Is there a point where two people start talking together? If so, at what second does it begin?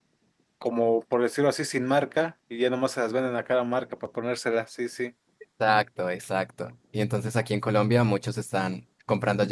none

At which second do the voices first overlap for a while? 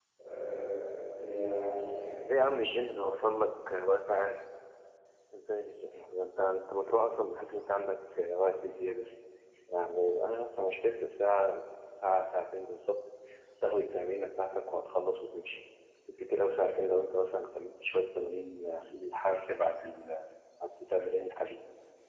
none

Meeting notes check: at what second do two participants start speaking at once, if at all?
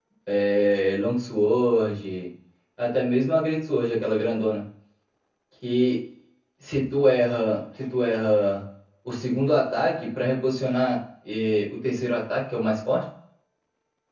none

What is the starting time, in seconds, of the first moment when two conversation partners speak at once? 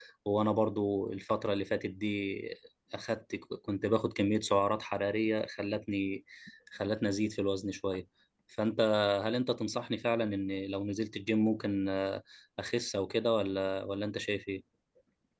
none

